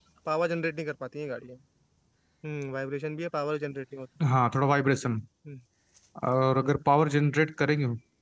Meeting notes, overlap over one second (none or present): none